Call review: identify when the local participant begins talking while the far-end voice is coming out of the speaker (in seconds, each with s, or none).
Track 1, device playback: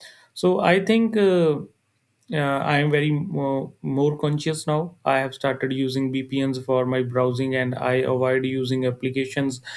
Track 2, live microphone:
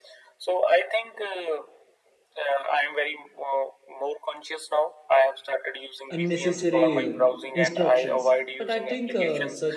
6.1 s